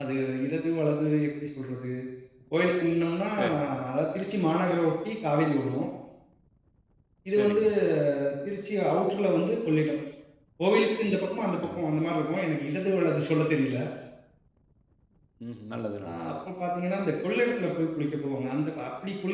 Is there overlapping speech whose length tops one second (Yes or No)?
No